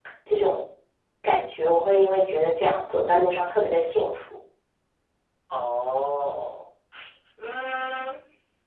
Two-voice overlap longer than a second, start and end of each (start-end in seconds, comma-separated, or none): none